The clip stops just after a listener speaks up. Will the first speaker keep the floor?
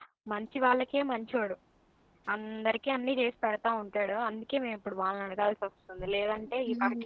No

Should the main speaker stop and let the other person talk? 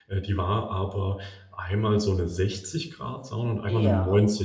No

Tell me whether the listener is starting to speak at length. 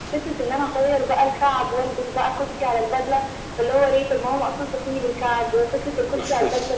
No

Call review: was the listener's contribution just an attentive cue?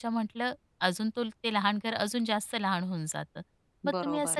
Yes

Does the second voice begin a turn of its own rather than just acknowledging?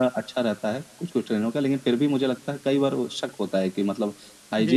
No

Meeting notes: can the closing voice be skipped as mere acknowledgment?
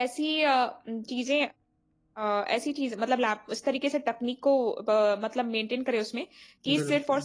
Yes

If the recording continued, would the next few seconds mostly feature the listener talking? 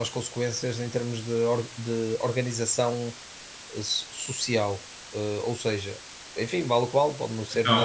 No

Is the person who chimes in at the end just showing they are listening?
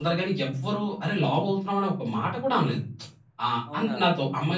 Yes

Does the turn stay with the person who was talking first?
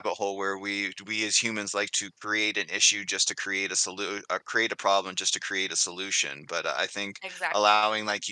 Yes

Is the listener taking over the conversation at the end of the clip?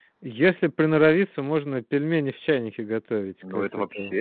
Yes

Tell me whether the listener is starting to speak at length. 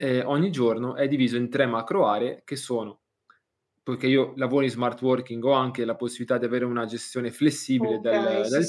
Yes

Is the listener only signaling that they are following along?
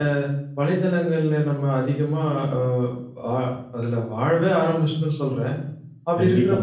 Yes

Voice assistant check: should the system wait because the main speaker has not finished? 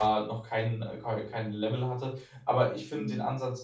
Yes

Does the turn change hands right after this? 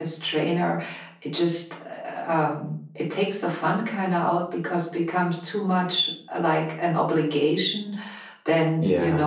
No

